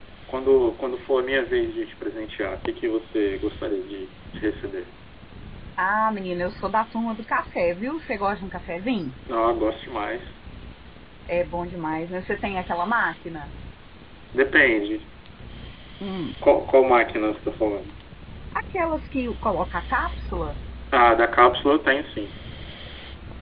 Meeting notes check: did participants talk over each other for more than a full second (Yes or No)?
No